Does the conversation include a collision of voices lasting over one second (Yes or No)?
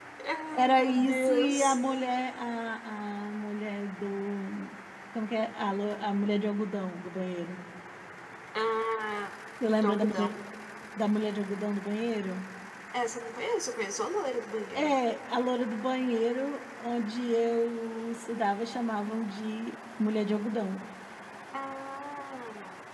Yes